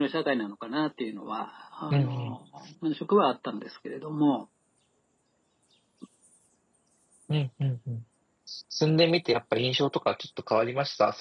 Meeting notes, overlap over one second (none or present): none